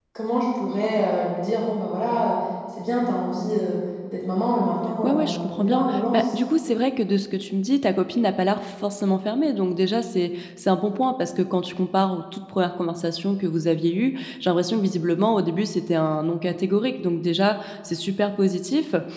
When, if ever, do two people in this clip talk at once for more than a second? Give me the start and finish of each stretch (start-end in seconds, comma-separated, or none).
5.0-6.2